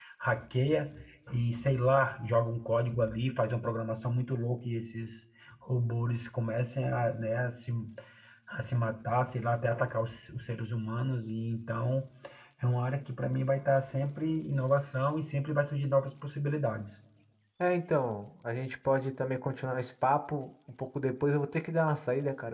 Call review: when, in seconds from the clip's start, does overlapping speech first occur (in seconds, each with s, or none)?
none